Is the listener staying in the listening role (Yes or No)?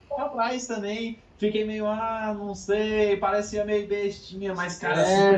No